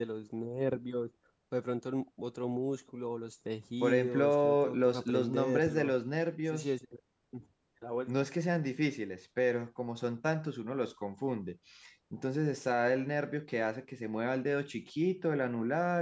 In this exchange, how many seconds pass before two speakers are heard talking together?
4 s

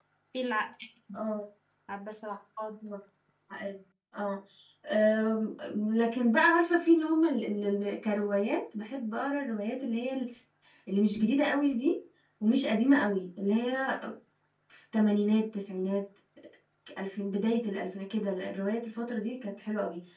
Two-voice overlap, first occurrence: none

